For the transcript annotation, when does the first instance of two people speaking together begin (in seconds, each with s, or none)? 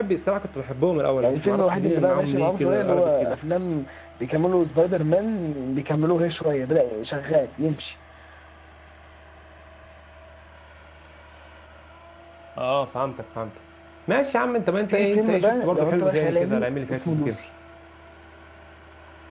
1.2 s